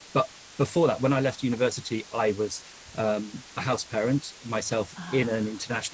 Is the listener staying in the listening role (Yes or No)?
Yes